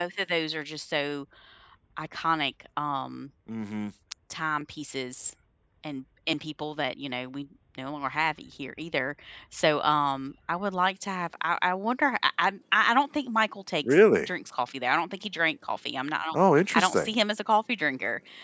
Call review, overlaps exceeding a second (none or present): none